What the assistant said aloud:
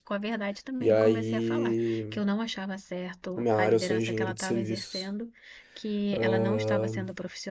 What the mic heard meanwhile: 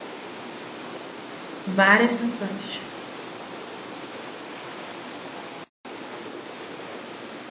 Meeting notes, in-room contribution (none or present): present